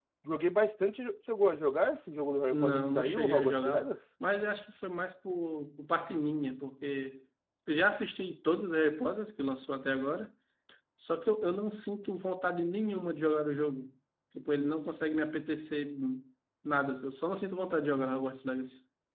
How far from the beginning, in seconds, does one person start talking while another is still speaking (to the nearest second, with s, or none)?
3 s